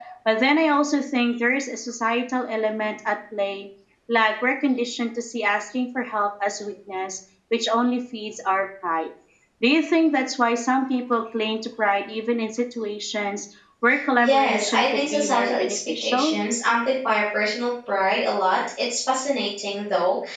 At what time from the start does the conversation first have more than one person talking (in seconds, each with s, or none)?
14.2 s